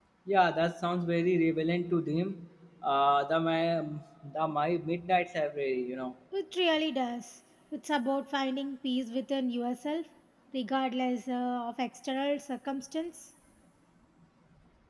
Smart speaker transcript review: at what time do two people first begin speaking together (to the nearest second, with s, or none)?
none